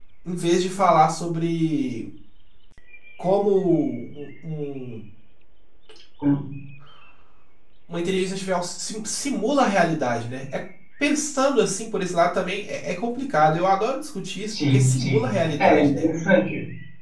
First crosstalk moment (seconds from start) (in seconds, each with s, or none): 14.5 s